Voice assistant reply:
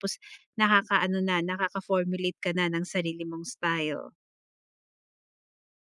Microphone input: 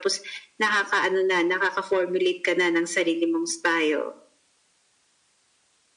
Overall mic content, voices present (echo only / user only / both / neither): echo only